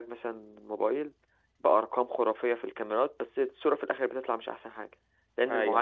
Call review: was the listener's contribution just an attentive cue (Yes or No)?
Yes